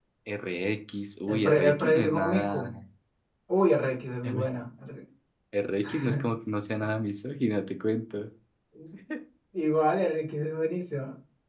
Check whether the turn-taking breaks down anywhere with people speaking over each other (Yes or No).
Yes